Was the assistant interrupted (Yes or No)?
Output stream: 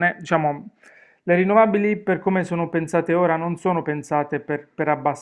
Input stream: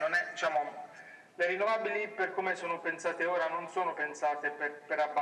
No